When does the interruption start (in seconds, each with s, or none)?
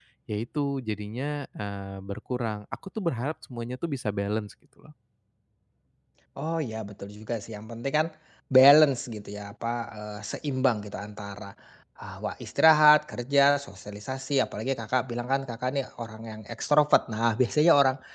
none